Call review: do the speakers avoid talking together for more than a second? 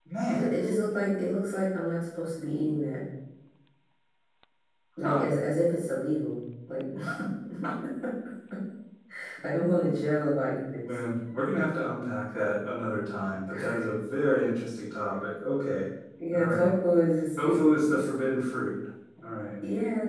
Yes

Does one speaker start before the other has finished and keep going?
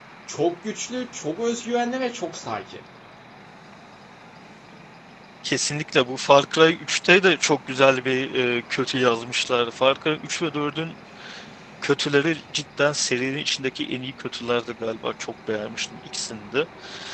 No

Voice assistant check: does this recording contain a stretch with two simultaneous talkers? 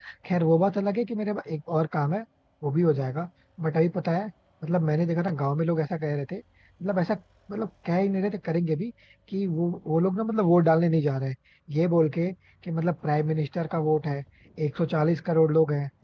No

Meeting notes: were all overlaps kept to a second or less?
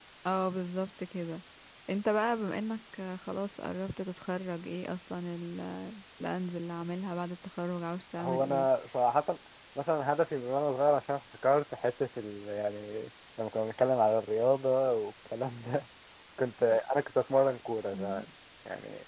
Yes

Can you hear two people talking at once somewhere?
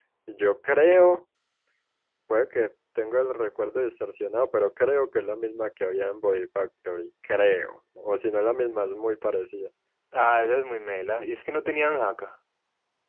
No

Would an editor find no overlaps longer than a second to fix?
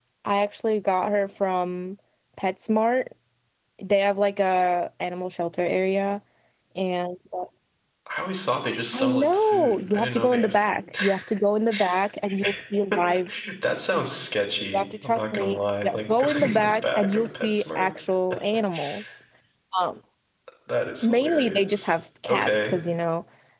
No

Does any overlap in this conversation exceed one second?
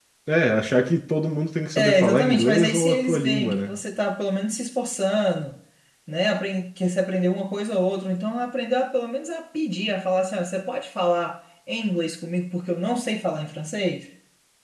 Yes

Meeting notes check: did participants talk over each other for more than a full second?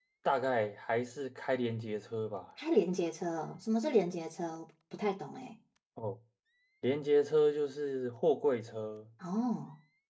No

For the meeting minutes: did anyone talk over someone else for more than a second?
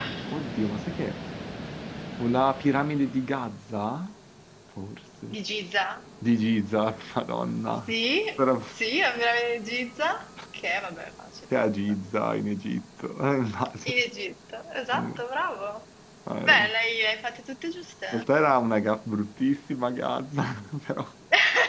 No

